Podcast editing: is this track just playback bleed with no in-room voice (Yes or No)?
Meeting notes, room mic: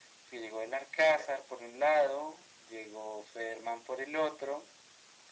Yes